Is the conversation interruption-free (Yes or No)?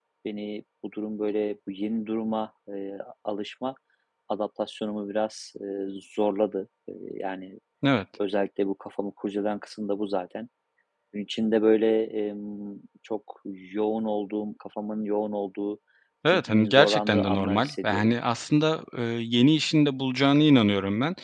No